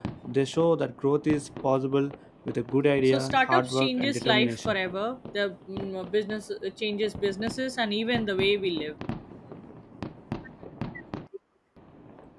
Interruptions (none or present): present